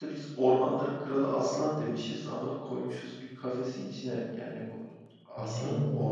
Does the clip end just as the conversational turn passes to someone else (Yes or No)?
No